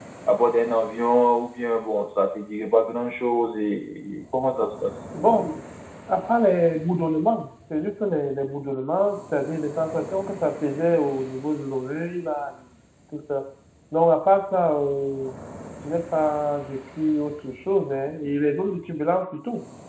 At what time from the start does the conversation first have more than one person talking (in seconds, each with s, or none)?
none